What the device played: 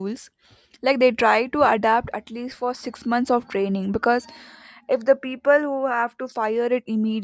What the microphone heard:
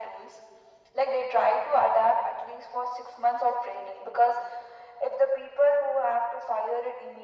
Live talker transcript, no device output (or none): none